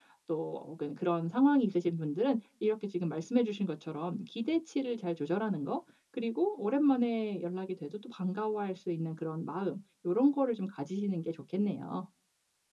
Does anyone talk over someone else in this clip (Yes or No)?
No